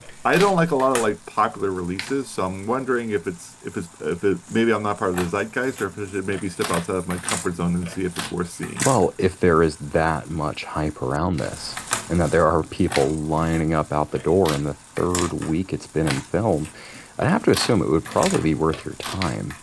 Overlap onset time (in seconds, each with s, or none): none